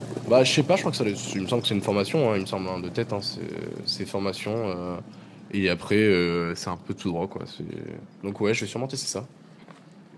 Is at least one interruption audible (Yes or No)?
No